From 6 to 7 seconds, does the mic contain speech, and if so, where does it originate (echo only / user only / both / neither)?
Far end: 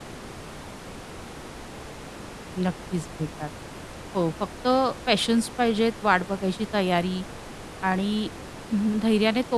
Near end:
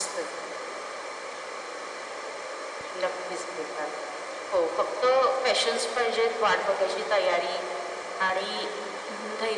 echo only